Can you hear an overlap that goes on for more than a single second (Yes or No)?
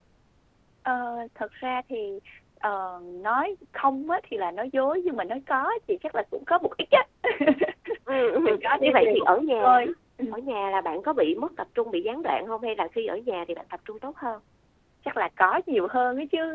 Yes